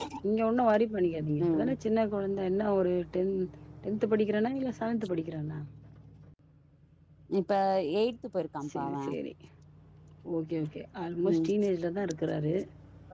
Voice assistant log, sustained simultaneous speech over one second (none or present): none